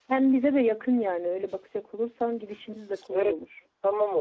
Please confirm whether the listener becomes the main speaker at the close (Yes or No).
Yes